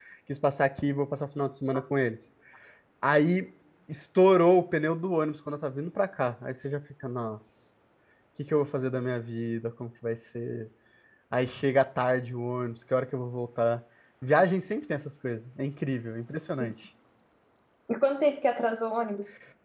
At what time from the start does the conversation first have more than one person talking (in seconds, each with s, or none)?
none